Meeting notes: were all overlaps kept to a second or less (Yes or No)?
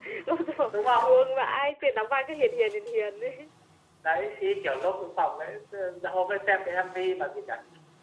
Yes